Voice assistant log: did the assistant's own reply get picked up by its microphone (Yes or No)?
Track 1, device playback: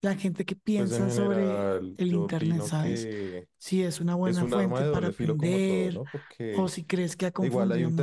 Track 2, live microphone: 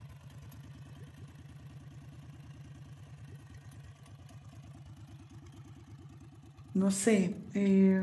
No